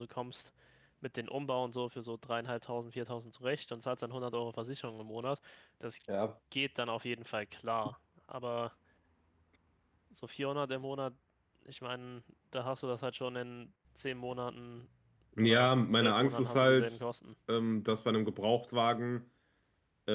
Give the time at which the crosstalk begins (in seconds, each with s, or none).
15.4 s